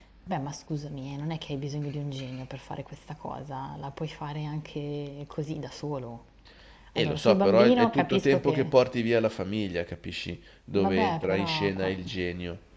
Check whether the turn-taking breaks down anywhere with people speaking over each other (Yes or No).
Yes